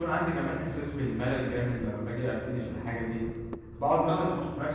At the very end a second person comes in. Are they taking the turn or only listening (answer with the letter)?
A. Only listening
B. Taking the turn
A